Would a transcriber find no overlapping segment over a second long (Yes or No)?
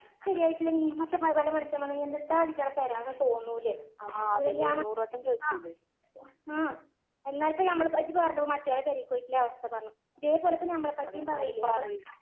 No